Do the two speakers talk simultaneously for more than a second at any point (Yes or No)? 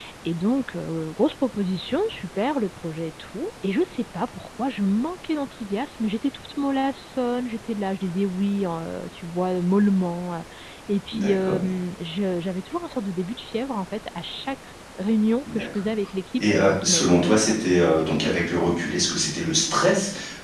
Yes